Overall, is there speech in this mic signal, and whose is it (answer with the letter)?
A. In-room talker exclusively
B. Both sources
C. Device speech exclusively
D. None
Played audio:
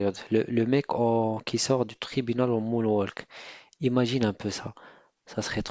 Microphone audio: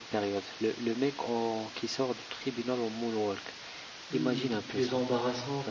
B